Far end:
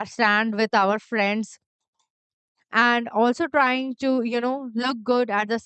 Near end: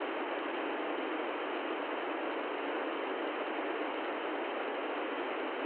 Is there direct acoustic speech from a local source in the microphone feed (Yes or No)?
No